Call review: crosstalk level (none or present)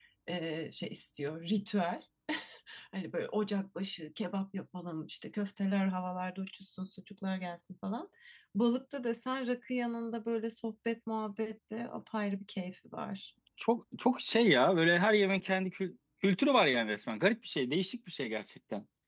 none